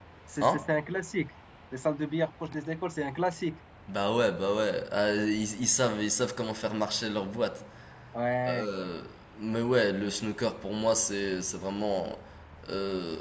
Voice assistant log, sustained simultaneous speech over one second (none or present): none